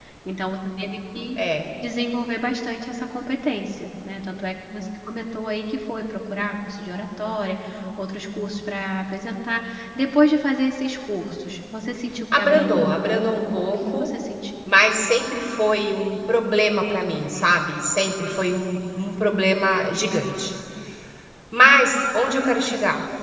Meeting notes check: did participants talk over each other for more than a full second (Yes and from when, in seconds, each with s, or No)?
Yes, from 12.3 s